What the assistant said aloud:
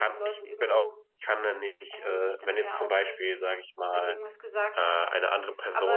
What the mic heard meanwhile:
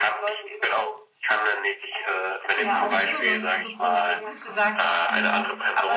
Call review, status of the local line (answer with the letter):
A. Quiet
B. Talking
B